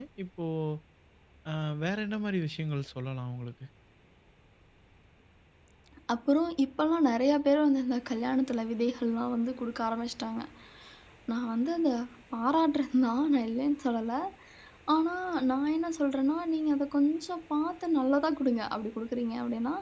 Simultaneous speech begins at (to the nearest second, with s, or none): none